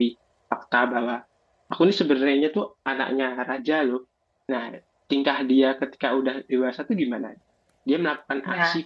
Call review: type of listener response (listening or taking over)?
listening